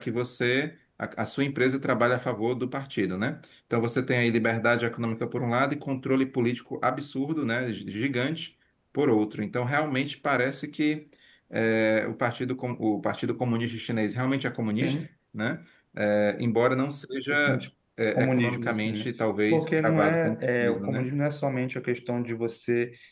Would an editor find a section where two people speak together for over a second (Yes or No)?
Yes